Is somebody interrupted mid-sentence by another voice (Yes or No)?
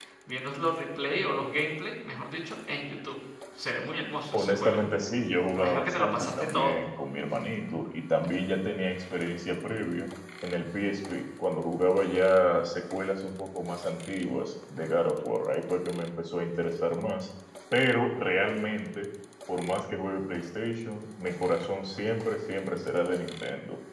Yes